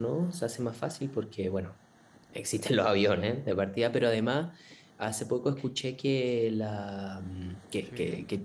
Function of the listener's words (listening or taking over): listening